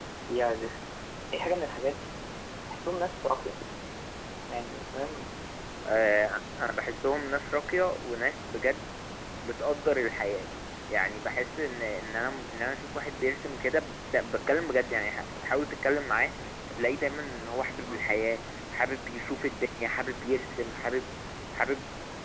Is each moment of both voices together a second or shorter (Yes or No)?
Yes